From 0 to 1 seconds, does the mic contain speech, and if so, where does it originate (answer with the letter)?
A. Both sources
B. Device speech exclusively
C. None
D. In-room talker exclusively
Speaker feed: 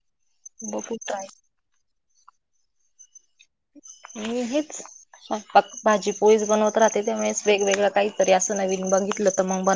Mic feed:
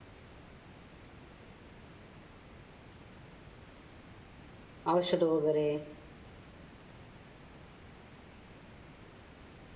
C